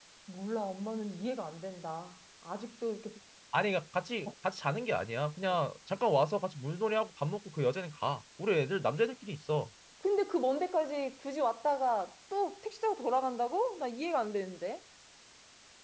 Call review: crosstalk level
none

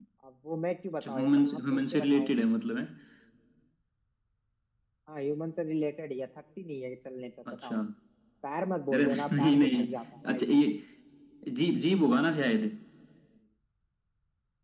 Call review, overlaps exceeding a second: present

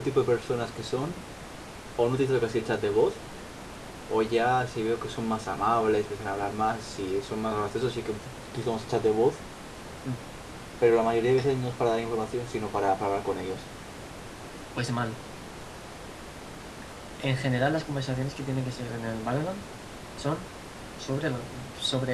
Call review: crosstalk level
none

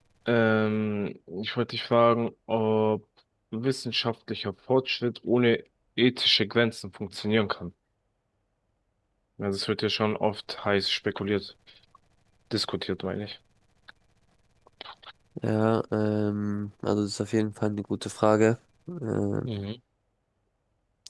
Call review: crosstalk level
none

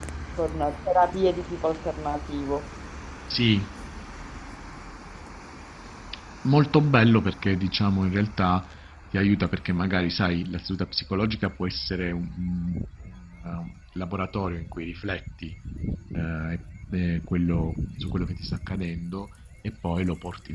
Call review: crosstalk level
none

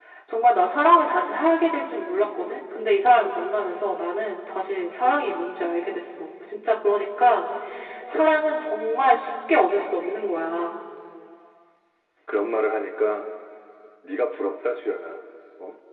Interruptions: none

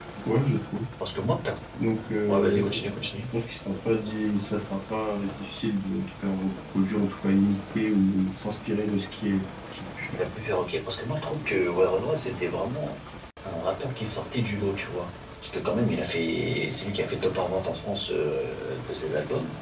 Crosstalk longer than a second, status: none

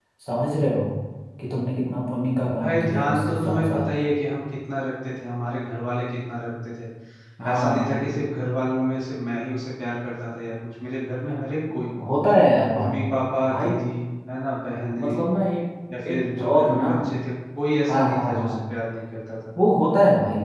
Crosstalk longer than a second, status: present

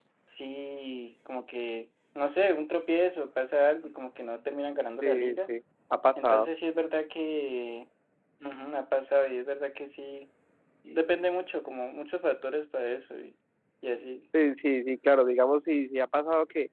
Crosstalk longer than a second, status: none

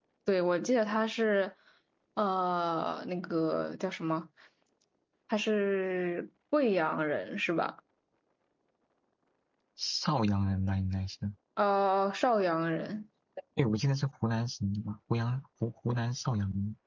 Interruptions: none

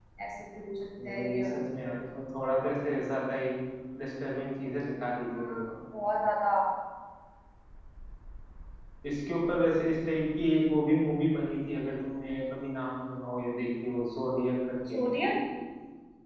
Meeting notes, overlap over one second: none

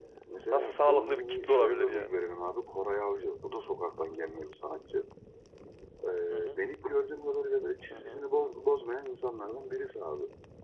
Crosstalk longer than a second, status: present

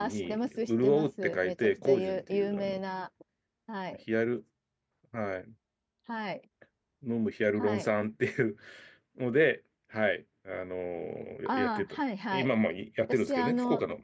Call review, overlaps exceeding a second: present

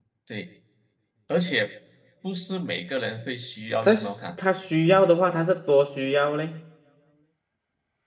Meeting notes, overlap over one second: none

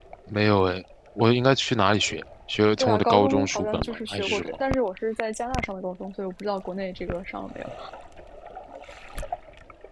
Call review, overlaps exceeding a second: present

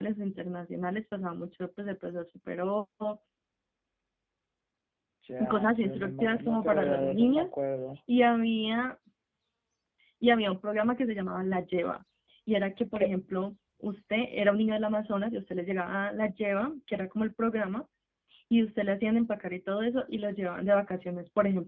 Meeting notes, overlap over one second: present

